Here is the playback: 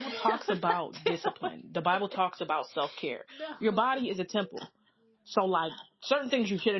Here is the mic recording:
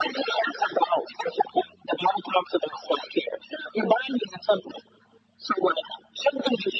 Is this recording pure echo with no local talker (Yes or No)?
Yes